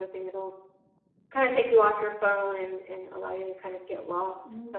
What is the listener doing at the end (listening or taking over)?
taking over